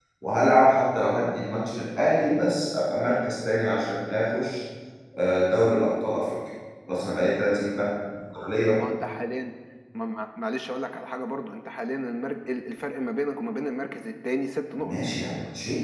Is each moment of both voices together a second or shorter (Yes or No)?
Yes